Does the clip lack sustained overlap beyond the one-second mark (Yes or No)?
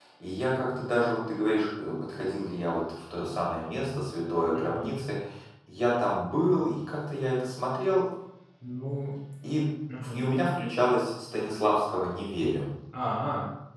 Yes